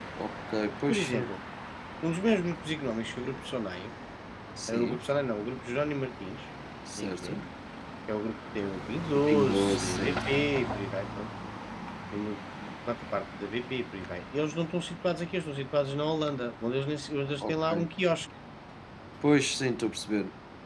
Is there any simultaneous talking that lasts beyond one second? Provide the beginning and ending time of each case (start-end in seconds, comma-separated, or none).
9.1-10.4